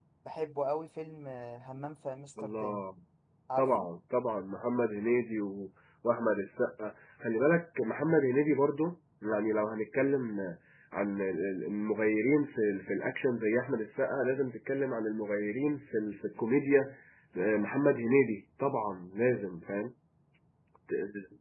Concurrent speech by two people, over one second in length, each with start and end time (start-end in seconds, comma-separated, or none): none